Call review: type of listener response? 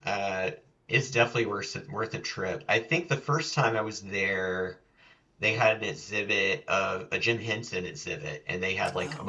listening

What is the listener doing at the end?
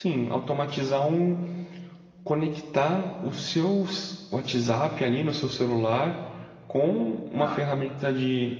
listening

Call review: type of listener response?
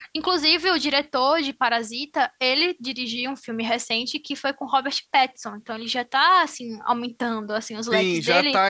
taking over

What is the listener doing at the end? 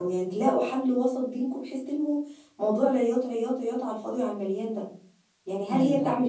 listening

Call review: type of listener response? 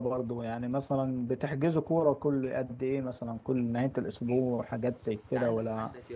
taking over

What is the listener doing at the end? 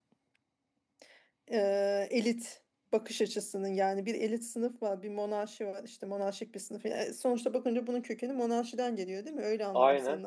listening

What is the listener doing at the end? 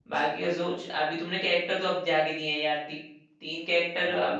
taking over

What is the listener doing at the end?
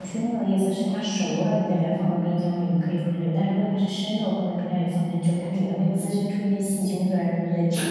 taking over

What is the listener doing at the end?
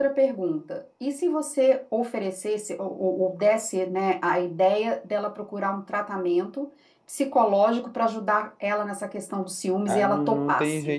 taking over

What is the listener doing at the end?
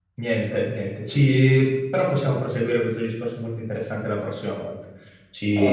listening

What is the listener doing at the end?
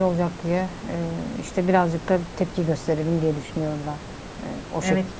taking over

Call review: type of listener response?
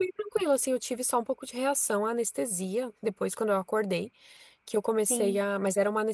listening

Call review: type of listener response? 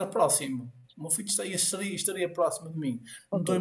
listening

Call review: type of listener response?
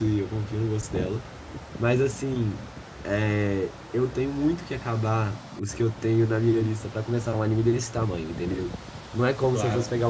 listening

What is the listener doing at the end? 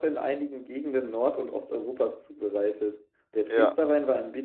listening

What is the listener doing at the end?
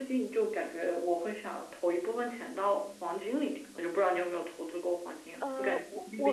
taking over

